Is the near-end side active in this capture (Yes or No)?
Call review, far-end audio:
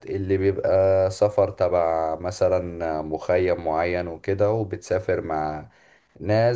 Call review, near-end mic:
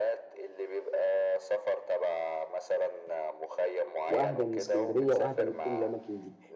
Yes